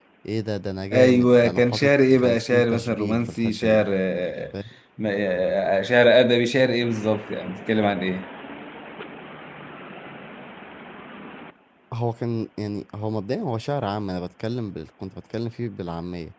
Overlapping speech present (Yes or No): Yes